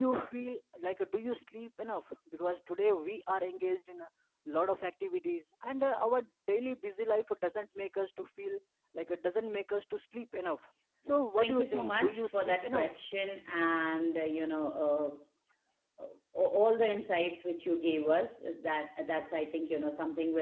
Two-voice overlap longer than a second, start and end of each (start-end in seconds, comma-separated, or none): 11.4-12.9